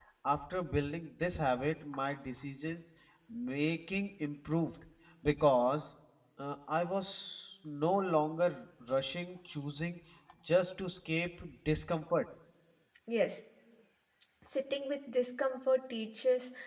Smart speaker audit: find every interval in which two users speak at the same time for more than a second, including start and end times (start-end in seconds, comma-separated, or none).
none